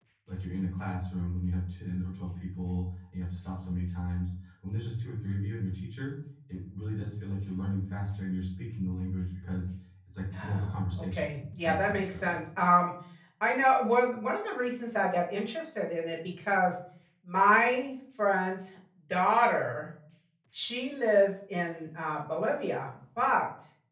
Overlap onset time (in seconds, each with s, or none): 10.3 s